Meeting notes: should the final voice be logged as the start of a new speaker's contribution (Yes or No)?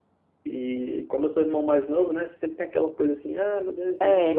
No